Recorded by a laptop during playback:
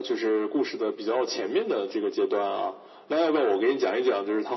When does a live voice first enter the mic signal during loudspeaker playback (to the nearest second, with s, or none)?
none